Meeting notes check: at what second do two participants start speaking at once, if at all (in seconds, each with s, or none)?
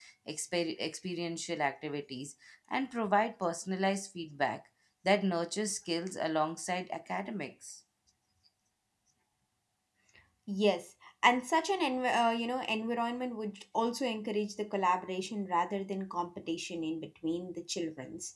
none